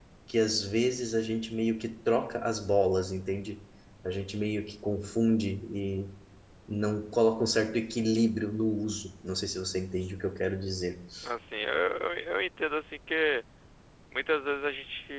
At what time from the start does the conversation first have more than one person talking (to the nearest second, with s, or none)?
none